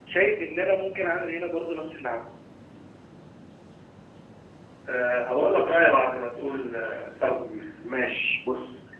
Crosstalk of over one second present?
No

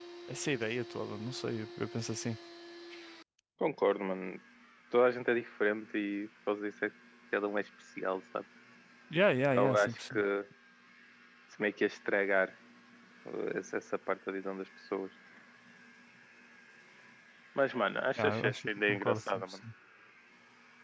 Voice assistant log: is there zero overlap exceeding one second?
No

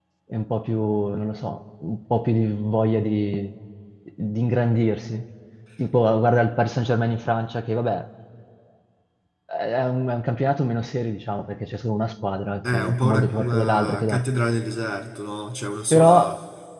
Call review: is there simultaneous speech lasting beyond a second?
Yes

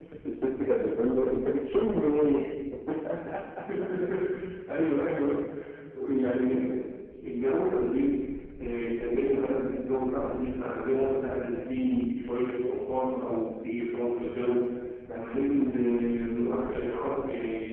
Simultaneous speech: No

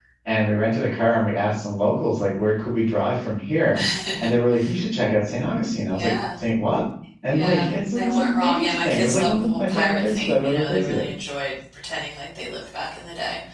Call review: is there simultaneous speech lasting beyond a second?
Yes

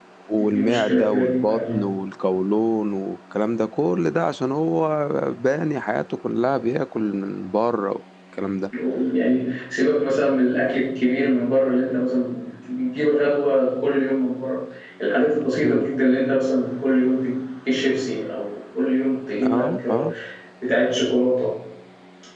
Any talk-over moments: Yes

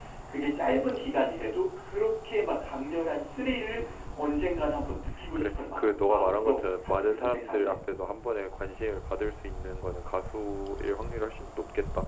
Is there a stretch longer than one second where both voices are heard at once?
Yes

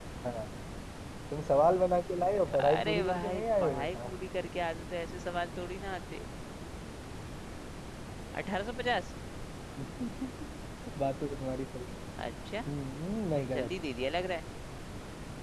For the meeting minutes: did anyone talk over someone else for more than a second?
Yes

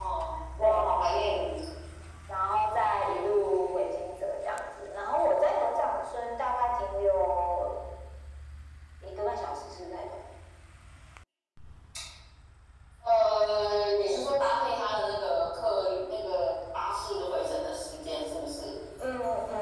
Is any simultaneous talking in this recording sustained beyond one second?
No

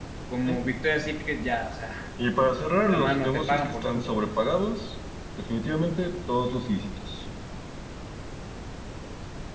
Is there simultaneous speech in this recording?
Yes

